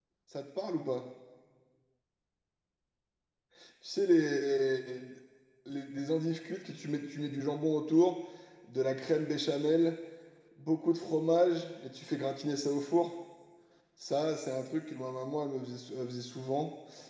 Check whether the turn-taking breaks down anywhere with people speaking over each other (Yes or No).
No